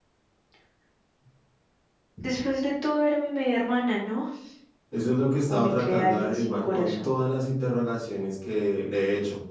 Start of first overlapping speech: 5 s

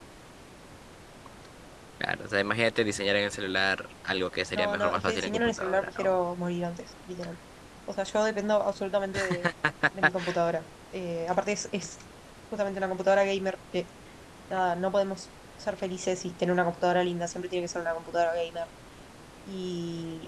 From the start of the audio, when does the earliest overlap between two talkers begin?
5 s

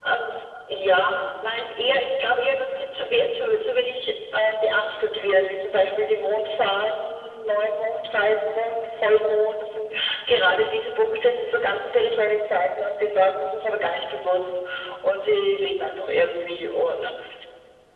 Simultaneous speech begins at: none

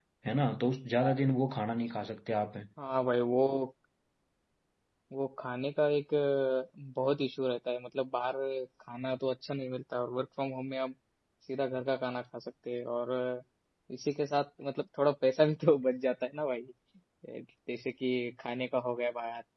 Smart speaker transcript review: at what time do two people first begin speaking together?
none

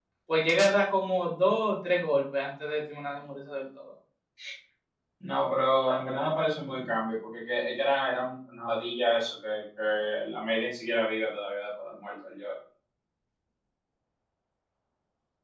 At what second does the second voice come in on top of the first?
none

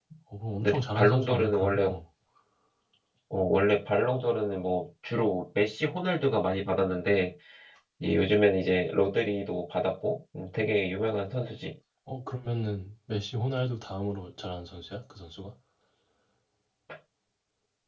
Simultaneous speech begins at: 1 s

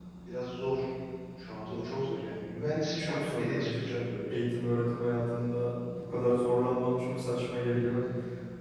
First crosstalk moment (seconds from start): 3 s

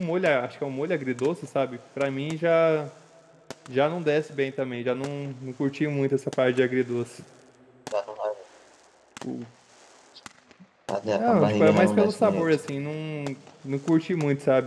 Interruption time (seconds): 11 s

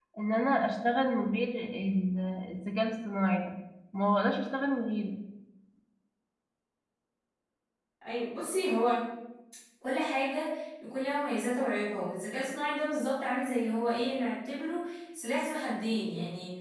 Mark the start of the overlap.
none

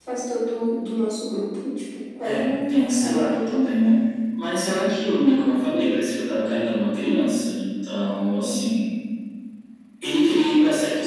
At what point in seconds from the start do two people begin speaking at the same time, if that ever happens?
2 s

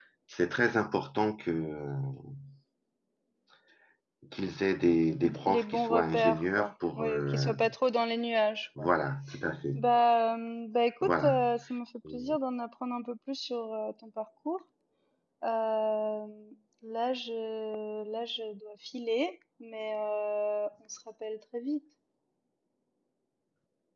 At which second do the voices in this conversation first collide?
5 s

